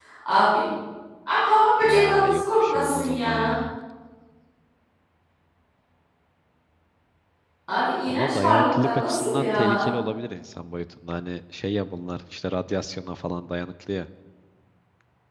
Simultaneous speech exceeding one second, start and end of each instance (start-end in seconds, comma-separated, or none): 1.8-3.5, 8.1-9.9